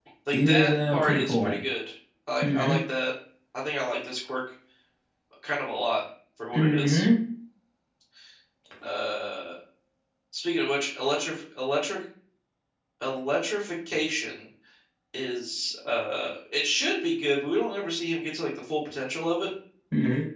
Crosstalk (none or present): present